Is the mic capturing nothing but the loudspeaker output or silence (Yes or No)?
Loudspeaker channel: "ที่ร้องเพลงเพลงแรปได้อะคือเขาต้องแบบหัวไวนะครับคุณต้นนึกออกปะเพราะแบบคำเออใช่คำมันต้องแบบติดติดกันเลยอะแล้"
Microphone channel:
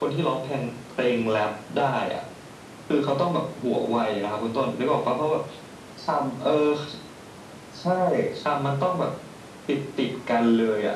Yes